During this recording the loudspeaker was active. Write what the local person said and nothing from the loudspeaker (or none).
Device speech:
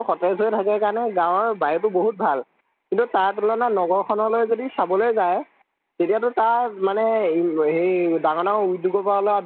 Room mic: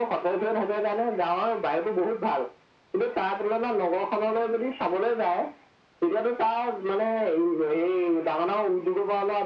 none